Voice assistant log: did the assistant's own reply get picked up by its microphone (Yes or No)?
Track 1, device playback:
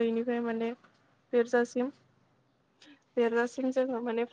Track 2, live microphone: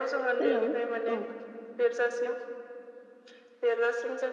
Yes